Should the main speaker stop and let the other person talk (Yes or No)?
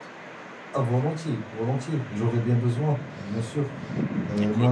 No